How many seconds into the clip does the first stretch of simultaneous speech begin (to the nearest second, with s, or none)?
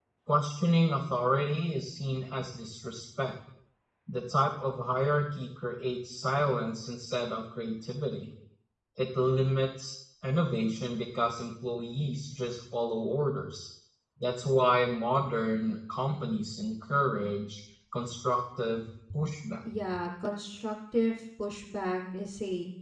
none